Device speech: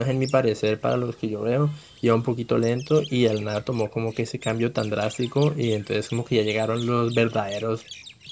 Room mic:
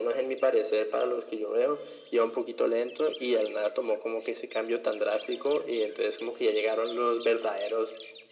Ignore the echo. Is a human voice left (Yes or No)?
No